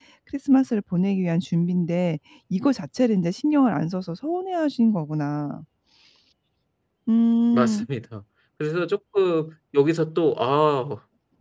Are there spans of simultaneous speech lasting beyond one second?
No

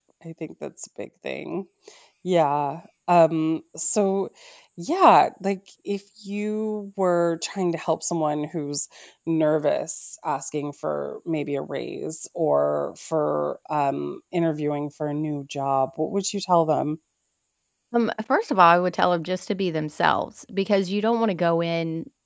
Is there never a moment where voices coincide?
Yes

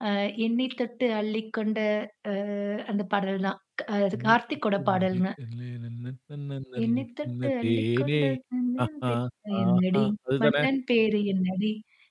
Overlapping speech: Yes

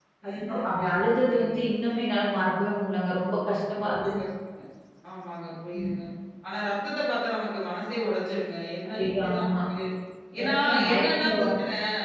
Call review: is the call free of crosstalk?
No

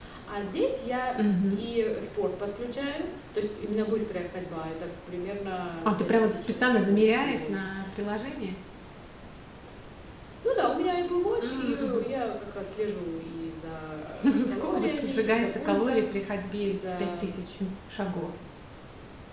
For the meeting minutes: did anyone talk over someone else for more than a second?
Yes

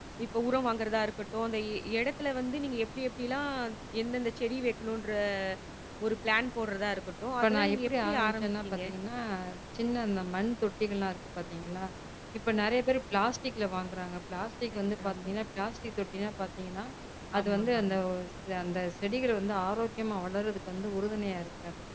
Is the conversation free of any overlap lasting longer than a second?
No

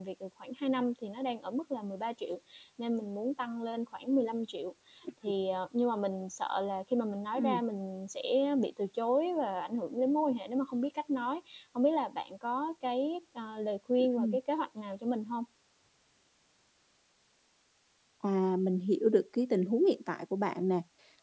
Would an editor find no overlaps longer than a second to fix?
Yes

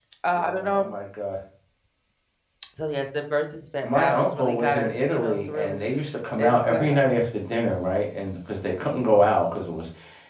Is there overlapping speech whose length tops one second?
Yes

